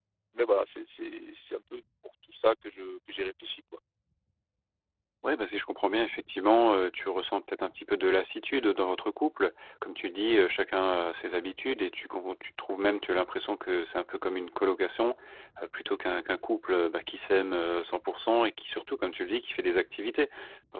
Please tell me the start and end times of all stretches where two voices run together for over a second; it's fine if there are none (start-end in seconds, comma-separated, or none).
none